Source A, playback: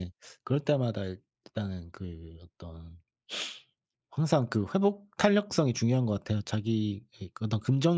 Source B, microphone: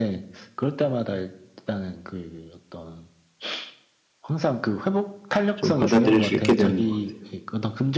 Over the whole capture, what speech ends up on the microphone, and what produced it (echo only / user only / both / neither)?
both